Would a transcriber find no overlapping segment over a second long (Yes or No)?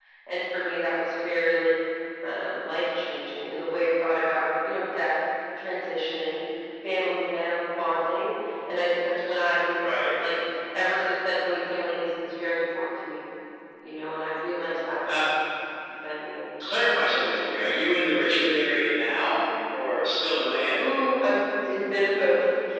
Yes